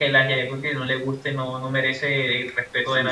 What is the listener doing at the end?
taking over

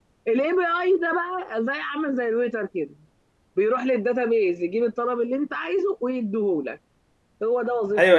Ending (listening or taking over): taking over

